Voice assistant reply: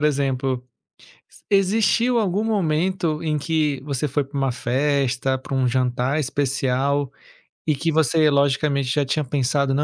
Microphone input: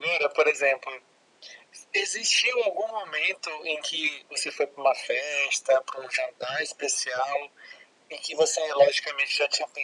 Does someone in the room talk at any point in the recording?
No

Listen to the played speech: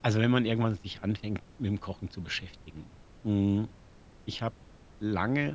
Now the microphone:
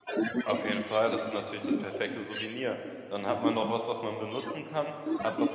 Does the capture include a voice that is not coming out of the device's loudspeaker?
Yes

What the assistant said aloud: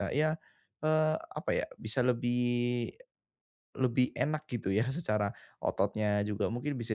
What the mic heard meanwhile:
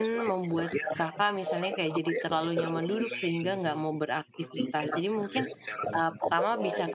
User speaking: Yes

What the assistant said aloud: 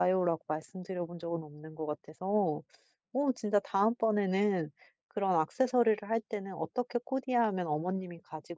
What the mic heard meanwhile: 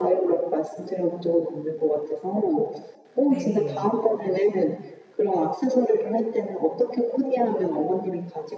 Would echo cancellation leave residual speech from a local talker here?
Yes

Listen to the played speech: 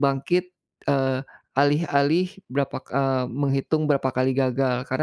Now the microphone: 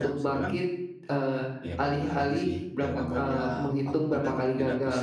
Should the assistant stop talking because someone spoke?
Yes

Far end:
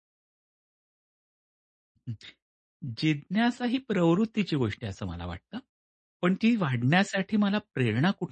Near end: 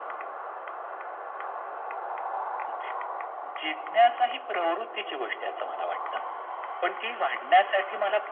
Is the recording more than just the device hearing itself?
No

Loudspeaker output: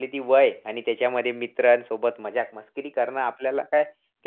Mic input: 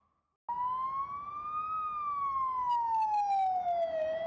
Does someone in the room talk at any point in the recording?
No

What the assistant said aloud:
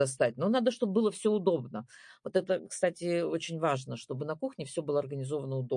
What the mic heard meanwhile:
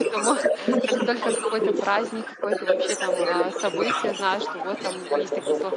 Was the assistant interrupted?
Yes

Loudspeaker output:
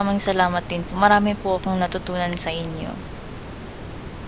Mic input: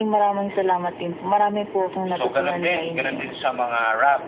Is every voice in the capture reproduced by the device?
No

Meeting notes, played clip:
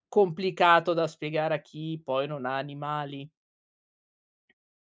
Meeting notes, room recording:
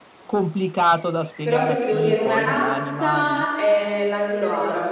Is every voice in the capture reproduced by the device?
No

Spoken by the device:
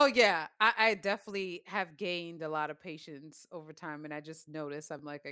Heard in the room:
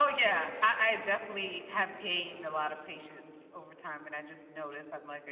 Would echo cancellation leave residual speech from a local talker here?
No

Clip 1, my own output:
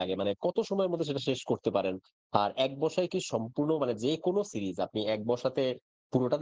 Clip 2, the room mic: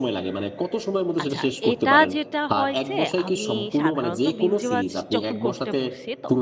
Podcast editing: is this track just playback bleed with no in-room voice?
No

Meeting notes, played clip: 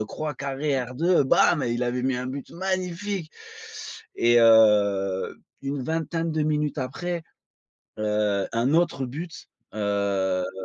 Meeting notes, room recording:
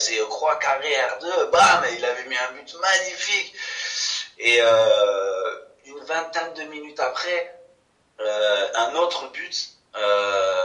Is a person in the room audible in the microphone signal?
No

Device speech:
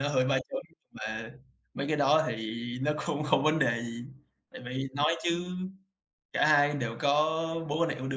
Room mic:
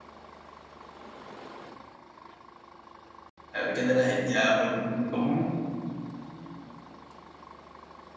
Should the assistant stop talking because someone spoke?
Yes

